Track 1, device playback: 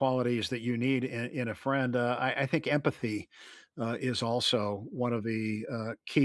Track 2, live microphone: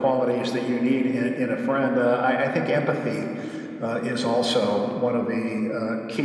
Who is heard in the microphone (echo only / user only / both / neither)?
echo only